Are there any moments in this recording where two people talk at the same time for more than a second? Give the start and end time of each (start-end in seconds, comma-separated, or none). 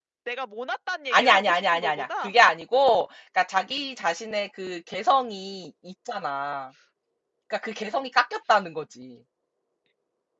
1.1-2.3